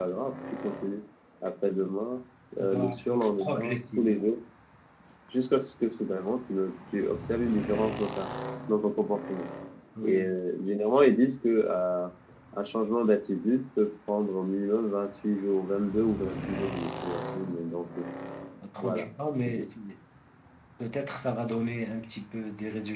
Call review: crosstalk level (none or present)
present